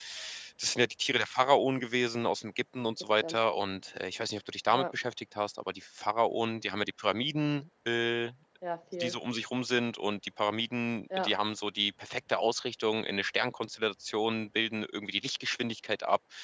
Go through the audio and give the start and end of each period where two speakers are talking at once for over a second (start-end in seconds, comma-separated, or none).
none